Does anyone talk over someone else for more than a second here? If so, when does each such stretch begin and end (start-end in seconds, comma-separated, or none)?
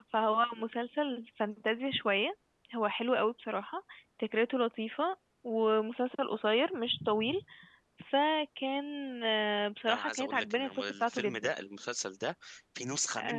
9.9-11.5